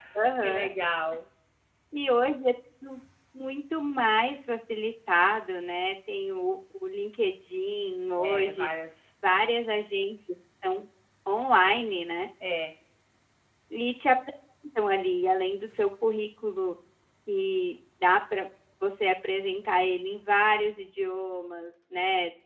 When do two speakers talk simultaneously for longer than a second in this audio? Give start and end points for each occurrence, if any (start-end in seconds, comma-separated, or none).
none